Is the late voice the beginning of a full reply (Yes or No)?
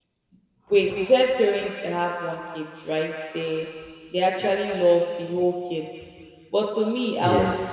No